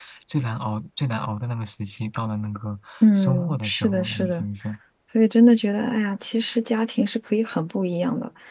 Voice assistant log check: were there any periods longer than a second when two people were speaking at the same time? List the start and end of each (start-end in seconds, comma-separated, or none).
3.0-4.5